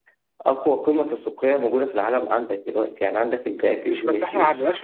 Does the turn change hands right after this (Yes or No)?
Yes